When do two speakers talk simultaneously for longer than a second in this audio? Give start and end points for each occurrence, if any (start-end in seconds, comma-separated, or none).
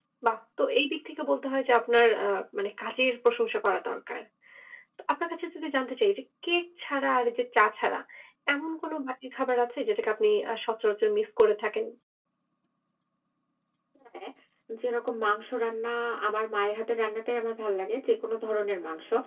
none